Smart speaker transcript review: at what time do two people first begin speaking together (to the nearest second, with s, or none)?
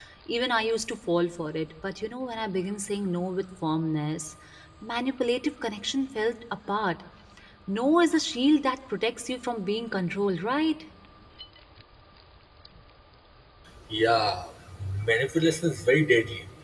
none